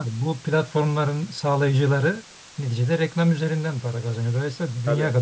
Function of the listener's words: listening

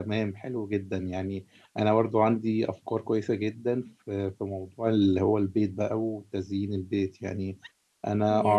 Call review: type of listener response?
listening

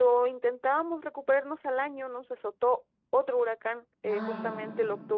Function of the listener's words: listening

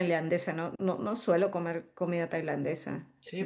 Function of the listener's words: taking over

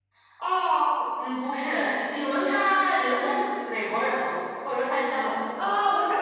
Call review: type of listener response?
taking over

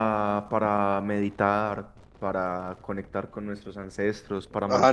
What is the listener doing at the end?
taking over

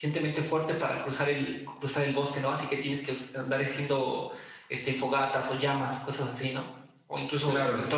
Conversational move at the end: listening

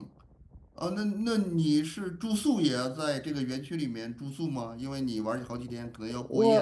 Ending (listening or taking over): taking over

